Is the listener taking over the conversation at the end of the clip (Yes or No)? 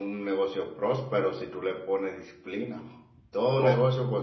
No